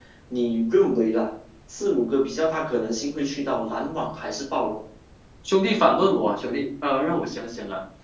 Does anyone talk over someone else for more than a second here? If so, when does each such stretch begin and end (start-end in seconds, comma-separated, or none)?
none